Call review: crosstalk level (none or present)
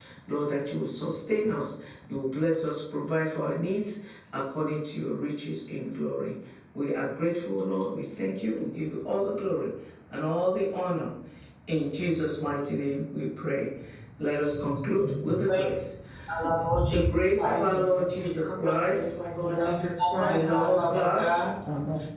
present